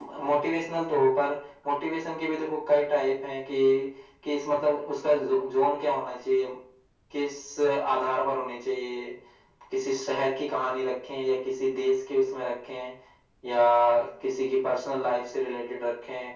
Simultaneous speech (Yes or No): No